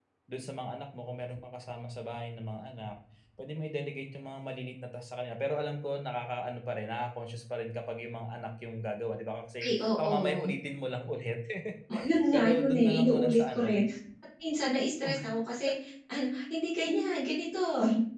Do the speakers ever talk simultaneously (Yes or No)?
Yes